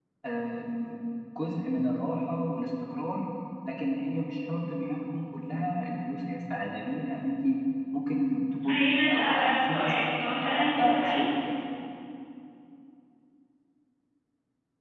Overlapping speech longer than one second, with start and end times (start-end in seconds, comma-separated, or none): 8.6-11.2